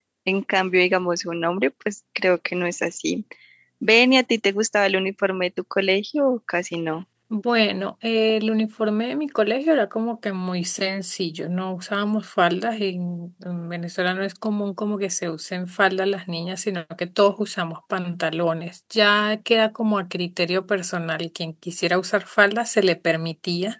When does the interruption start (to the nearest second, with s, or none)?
none